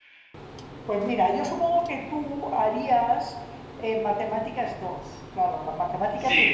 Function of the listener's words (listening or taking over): listening